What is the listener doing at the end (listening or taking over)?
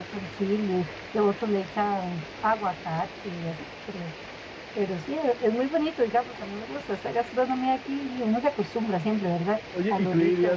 taking over